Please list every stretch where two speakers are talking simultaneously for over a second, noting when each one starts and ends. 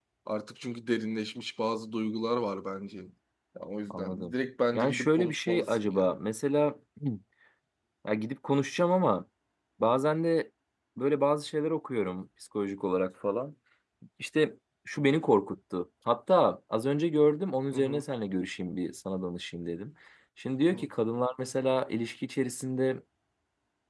4.8-6.2

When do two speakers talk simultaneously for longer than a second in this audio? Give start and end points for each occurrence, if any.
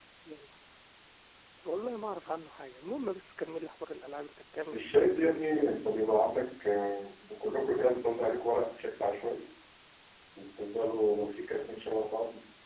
4.7-6.0

